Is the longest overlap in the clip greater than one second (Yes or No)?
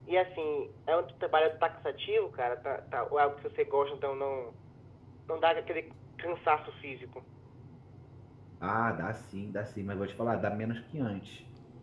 No